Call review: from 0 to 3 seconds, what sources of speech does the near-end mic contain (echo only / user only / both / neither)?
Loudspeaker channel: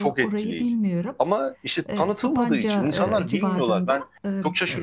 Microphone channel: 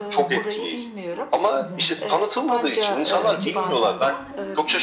both